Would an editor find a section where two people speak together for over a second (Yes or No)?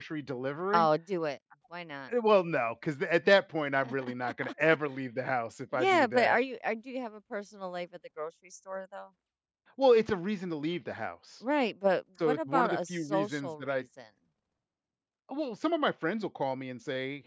Yes